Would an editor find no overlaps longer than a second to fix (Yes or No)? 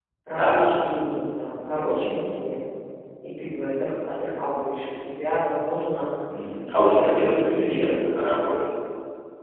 No